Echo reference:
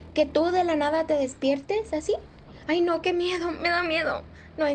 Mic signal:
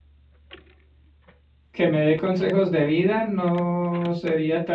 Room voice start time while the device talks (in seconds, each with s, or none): 1.7 s